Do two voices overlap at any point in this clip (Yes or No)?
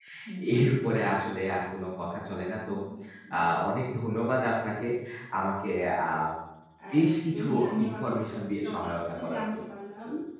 Yes